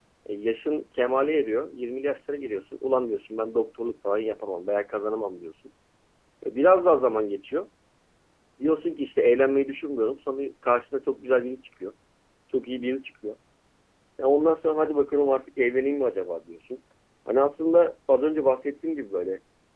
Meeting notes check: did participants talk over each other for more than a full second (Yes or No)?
No